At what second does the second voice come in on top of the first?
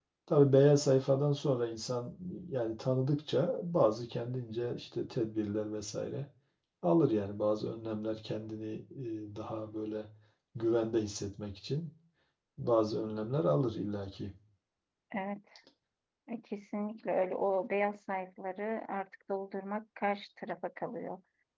none

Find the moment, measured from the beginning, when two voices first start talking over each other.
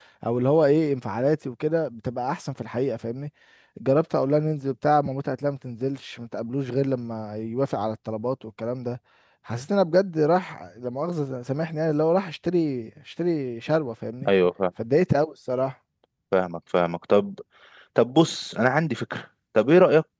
none

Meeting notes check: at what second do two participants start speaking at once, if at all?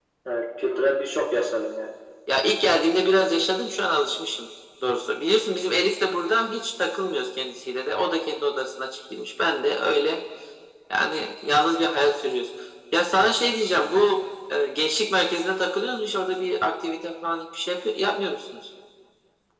none

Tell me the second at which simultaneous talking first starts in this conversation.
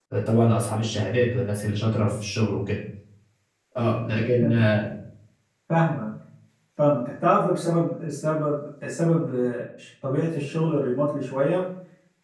none

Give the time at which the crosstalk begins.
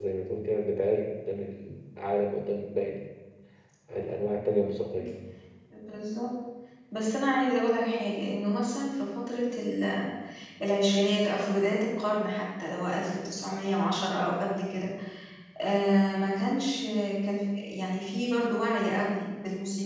none

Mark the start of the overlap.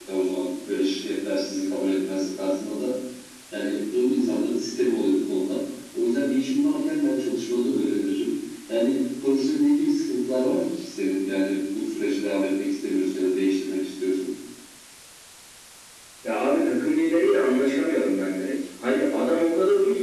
none

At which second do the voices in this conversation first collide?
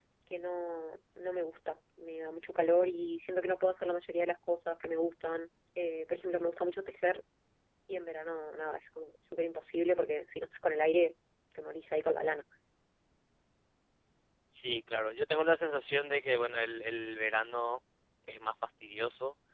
none

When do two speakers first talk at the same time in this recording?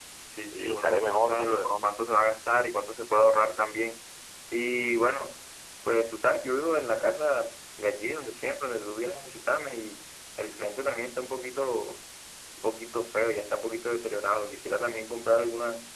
0.5 s

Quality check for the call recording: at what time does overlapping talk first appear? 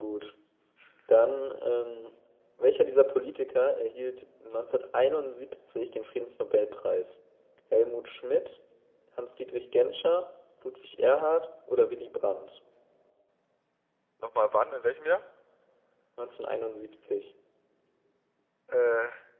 none

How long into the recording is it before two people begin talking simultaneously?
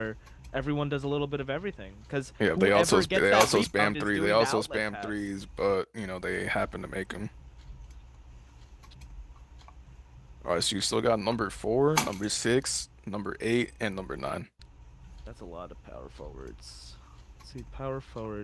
2.4 s

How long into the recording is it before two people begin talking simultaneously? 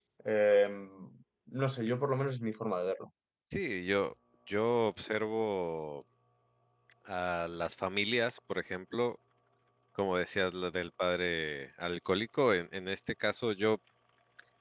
none

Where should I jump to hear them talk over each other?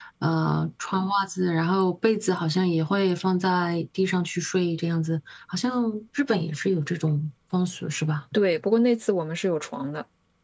none

